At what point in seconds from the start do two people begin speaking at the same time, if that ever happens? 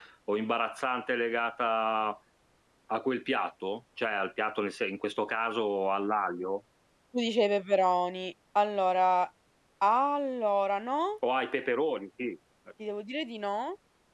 none

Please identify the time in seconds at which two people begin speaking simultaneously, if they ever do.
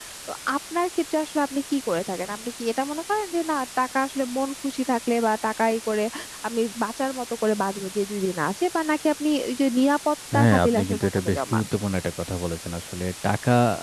10.3 s

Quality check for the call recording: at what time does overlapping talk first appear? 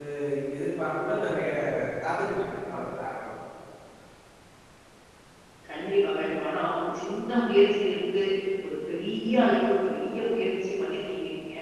none

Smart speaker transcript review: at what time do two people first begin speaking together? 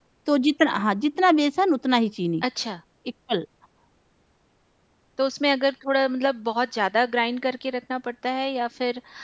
none

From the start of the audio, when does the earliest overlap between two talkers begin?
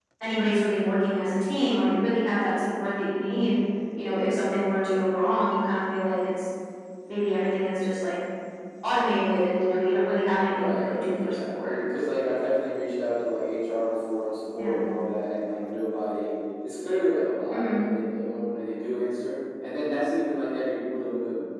10.5 s

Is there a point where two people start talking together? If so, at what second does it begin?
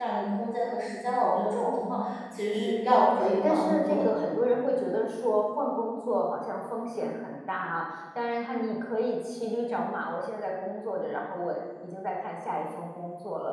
2.5 s

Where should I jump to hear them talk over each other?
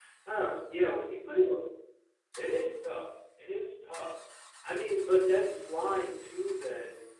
none

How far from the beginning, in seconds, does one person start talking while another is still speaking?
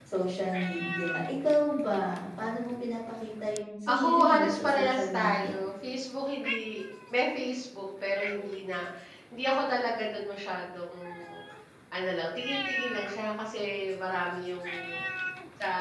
3.9 s

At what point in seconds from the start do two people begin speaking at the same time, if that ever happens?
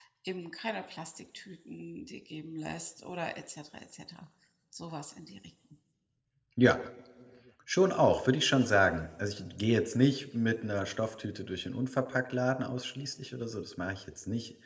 none

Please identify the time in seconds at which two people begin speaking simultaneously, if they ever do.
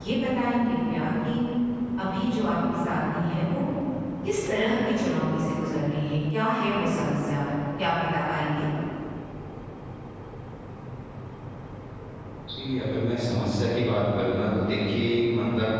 none

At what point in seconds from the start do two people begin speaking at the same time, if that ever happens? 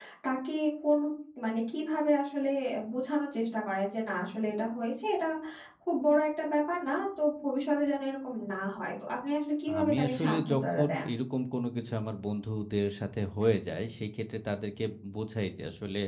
9.7 s

